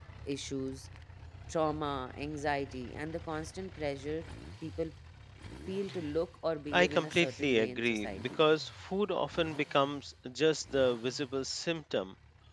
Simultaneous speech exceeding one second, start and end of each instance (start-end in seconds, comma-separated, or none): 6.7-8.4